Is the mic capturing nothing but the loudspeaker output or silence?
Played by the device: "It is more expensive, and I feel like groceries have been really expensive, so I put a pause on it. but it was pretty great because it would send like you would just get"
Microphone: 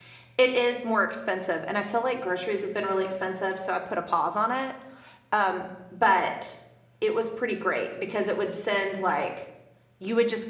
Yes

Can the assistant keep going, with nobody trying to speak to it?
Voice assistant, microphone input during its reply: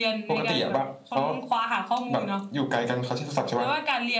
Yes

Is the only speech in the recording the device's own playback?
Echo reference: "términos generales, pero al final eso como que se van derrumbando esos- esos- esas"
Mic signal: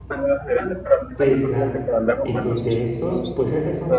No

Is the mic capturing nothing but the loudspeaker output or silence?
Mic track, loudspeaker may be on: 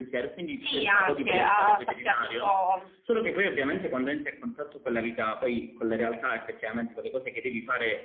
No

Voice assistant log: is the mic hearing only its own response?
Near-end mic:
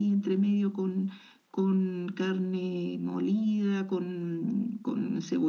Yes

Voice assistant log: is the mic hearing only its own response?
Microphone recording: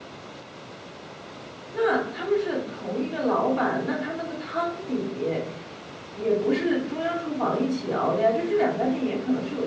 No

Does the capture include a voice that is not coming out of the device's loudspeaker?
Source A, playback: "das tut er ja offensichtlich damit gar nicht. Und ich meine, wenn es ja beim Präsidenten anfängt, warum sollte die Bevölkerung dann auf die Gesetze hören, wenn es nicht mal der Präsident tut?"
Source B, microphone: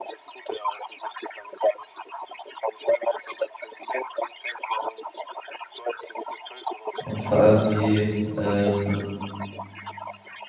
Yes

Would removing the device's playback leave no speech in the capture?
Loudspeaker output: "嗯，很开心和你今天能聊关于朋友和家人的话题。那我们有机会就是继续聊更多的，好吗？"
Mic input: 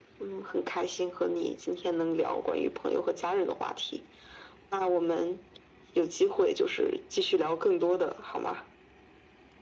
Yes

